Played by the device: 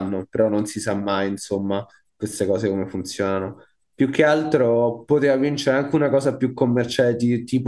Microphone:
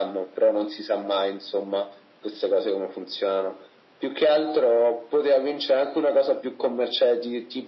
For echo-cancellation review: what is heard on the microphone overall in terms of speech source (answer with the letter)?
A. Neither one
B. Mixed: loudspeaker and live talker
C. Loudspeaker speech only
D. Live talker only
C